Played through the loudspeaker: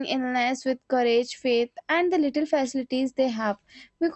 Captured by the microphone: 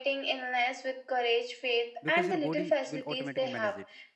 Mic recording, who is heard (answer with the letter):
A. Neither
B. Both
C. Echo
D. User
B